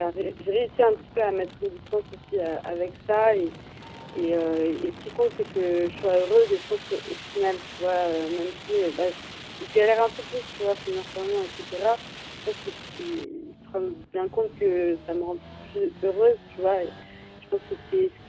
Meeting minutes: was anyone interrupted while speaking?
No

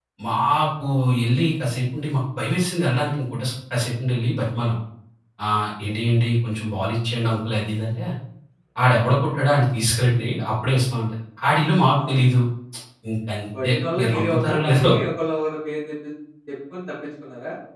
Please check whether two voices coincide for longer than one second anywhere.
Yes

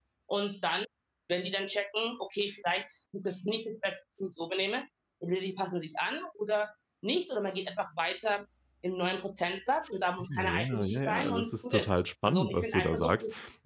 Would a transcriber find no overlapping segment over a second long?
No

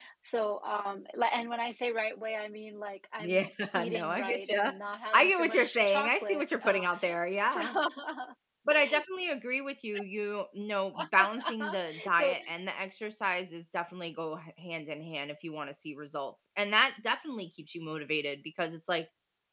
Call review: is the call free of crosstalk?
No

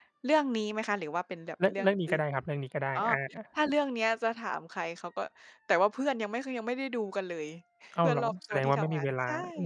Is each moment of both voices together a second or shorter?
No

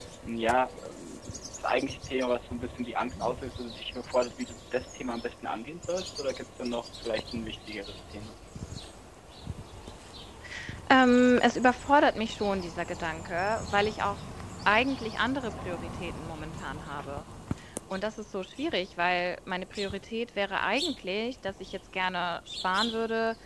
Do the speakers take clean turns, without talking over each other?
Yes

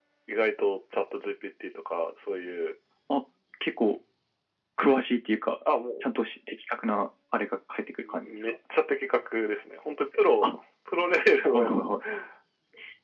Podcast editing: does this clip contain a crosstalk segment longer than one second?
No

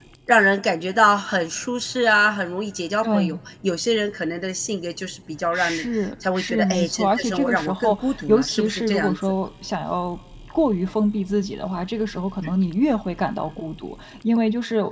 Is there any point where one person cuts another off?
Yes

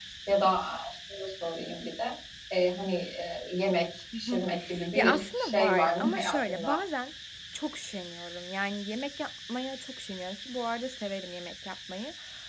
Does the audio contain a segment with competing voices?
Yes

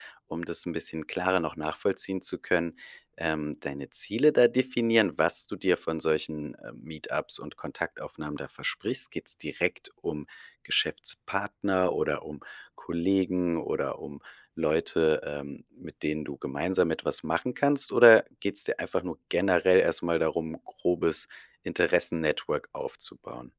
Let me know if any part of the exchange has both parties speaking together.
No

